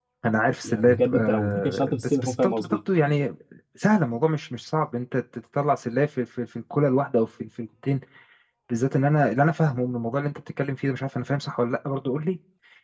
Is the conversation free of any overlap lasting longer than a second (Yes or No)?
No